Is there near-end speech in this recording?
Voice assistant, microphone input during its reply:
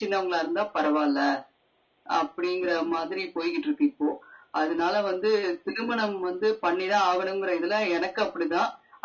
No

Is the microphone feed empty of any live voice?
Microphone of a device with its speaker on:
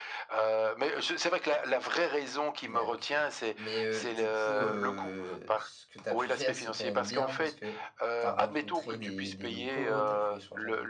No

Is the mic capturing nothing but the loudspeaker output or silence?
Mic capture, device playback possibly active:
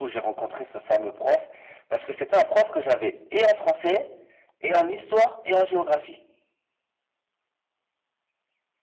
Yes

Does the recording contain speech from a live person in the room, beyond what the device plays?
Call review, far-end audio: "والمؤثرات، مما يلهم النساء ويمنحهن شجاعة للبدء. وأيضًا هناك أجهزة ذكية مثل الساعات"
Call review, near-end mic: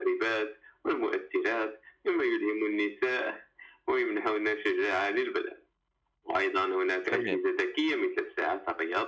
Yes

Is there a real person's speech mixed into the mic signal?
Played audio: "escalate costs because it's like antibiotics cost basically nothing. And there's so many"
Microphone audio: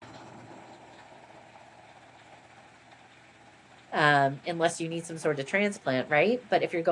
Yes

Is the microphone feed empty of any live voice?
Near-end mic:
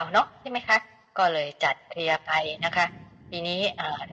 Yes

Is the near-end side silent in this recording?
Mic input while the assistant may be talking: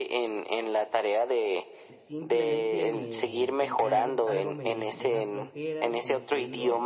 No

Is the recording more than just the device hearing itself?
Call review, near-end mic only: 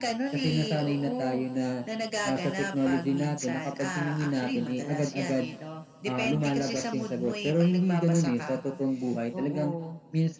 No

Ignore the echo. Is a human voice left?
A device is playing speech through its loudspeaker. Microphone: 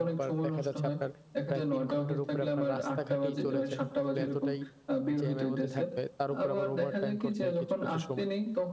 Yes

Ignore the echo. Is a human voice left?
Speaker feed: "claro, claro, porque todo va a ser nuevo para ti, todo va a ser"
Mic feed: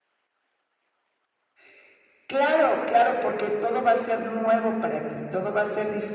No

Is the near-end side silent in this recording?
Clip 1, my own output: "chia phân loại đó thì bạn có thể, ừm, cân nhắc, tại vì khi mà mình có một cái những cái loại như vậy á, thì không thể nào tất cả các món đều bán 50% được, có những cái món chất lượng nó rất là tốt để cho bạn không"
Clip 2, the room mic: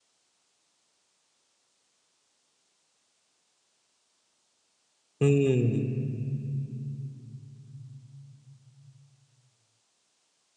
No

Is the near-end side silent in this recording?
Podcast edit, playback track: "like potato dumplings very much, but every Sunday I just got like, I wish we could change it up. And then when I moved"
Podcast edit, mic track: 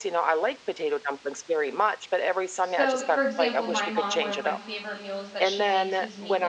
No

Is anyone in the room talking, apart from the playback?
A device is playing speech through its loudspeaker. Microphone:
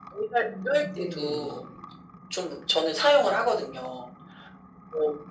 Yes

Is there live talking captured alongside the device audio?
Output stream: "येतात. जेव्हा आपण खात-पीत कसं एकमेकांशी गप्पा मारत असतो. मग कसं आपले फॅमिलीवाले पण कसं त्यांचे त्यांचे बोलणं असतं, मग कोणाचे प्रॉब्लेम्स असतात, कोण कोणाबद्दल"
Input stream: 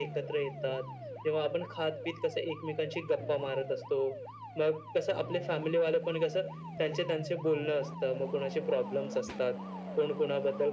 No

